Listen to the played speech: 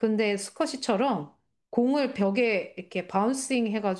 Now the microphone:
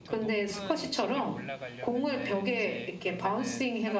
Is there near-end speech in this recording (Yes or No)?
Yes